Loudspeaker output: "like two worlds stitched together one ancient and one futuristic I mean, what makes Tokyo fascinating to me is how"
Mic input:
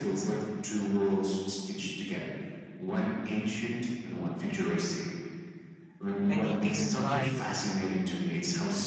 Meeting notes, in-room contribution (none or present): present